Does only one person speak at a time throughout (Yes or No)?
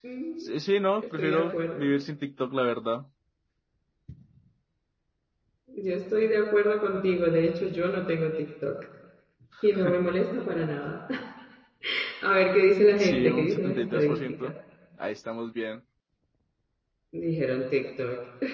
No